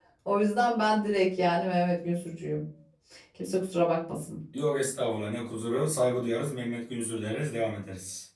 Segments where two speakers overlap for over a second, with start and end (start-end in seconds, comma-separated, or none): none